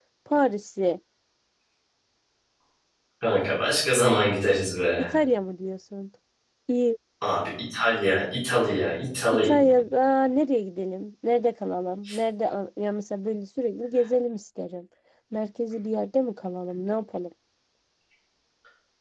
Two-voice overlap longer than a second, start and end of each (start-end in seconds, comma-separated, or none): none